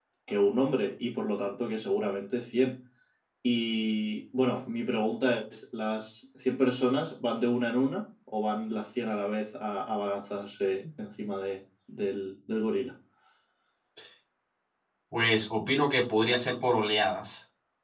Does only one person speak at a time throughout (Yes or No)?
Yes